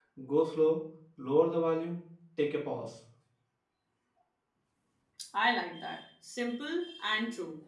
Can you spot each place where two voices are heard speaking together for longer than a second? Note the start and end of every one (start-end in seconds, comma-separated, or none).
none